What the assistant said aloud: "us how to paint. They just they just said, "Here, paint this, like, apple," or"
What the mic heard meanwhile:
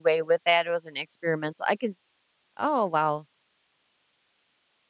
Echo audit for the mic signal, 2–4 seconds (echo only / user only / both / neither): user only